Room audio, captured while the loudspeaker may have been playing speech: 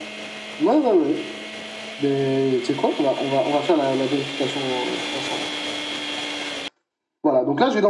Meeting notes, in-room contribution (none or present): none